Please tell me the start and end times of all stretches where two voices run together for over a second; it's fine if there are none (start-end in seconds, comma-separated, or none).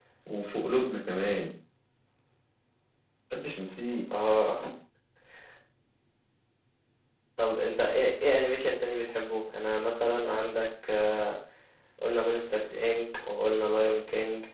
none